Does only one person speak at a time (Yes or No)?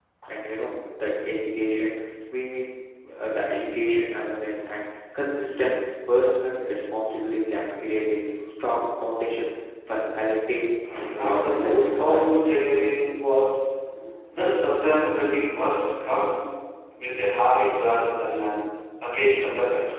No